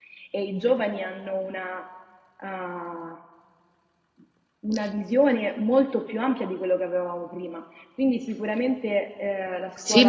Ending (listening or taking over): taking over